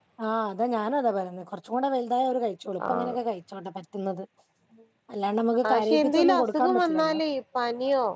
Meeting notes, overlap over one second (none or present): present